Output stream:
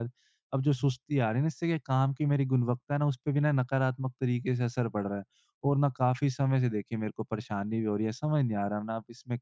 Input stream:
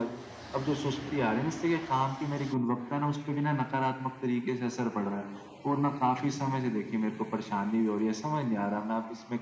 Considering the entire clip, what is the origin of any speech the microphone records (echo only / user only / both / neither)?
echo only